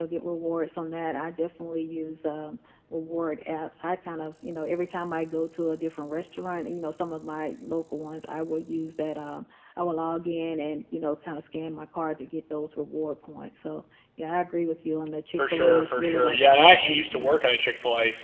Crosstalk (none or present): present